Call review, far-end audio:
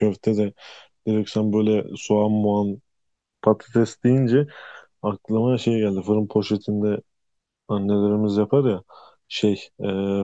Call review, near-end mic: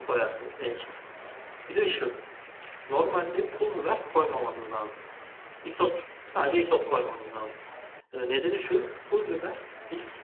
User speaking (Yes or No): Yes